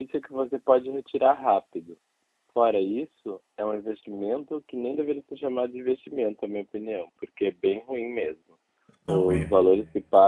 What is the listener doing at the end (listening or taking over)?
listening